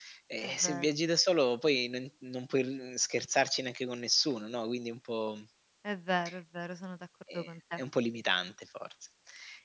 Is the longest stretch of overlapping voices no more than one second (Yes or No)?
Yes